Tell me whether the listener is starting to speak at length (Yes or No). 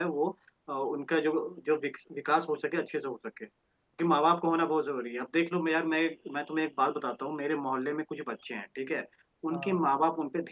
No